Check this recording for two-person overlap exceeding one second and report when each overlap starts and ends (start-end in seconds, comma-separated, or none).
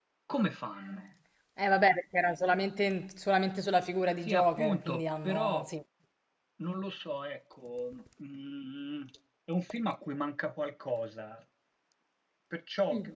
4.2-5.6